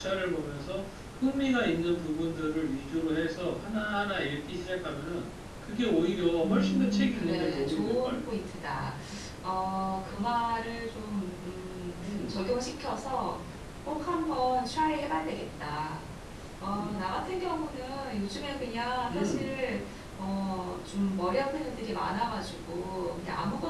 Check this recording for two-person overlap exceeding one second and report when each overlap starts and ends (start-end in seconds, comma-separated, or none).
6.4-8.2